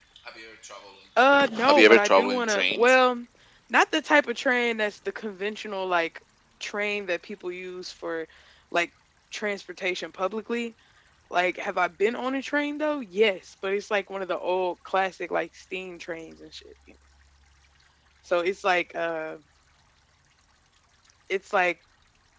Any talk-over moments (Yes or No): Yes